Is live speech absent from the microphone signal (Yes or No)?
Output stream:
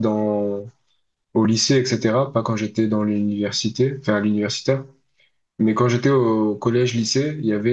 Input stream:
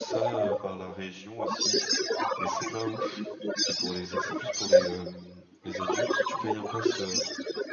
No